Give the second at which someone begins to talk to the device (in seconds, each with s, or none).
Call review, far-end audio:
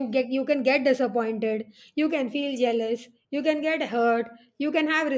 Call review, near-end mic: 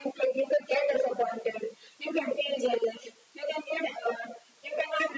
none